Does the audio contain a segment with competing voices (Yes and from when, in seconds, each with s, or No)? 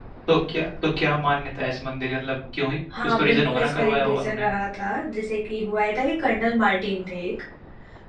Yes, from 2.9 s